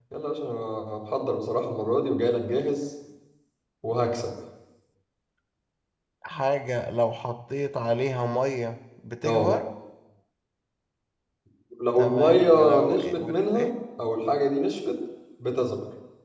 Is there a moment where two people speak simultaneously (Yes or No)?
Yes